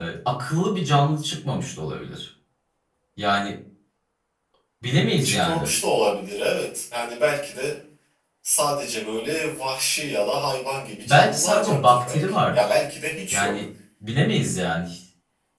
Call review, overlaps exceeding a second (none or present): present